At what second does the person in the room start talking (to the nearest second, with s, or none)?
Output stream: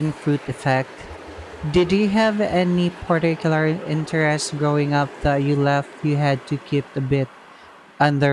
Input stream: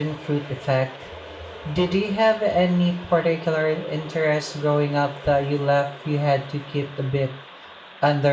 none